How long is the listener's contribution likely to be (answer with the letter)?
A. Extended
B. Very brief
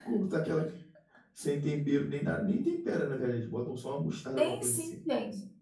A